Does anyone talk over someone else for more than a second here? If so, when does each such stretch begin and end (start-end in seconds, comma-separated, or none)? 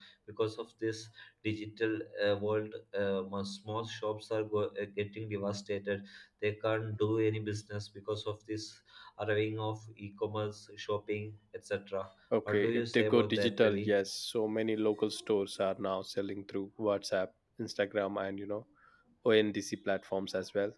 12.5-13.9